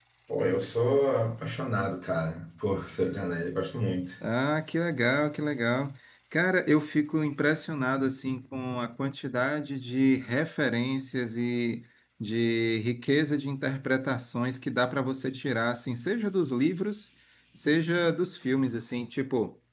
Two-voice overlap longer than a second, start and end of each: none

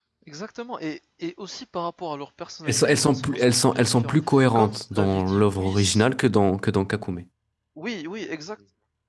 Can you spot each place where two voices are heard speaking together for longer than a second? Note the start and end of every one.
2.7-6.0

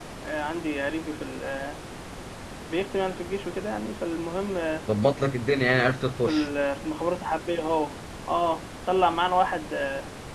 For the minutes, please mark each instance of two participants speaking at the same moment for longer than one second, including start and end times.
none

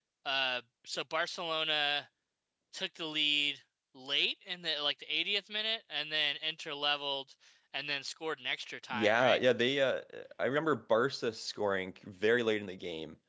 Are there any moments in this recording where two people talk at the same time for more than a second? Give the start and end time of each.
none

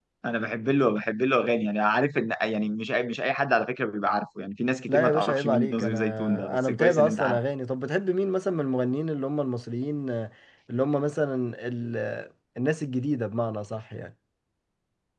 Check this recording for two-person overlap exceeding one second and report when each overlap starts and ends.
4.9-7.4

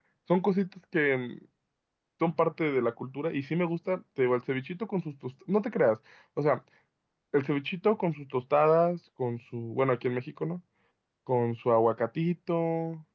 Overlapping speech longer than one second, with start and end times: none

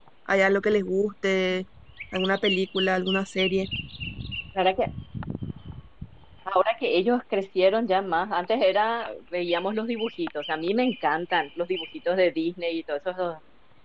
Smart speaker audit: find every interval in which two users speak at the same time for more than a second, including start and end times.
none

